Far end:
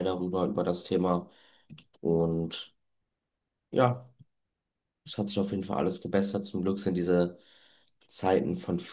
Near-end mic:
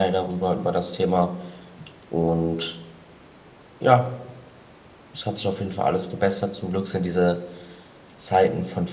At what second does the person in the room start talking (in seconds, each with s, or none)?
none